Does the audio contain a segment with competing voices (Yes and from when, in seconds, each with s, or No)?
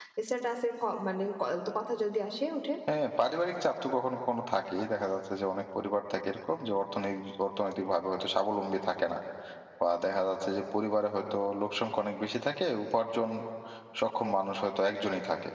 No